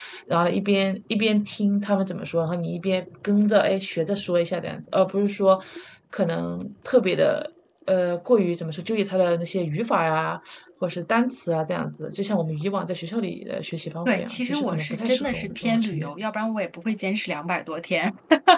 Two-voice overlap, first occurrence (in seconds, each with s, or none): 14.0 s